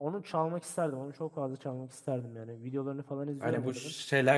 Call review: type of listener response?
taking over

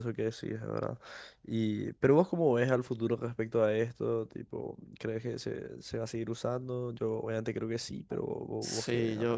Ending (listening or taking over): taking over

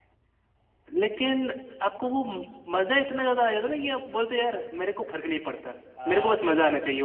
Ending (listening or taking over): taking over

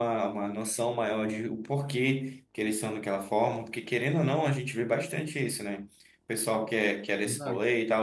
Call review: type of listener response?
listening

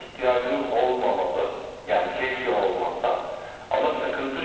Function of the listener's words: listening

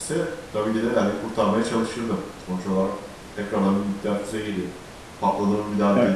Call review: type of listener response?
listening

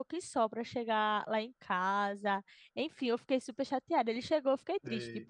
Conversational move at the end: listening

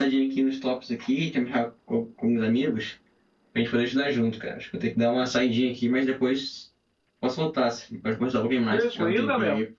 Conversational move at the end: taking over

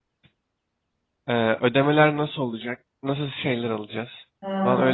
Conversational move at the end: taking over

